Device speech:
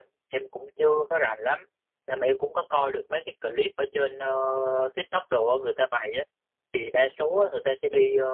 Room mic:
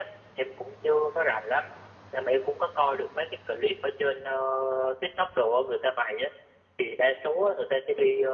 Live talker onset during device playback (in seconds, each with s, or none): none